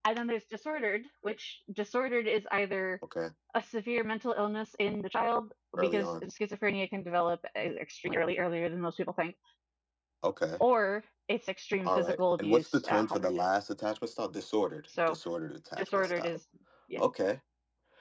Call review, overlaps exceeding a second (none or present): present